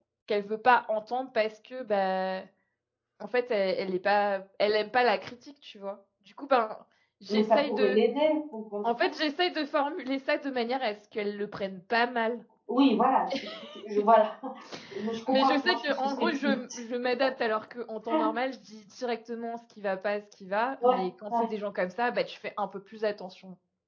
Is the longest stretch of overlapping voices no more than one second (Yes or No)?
No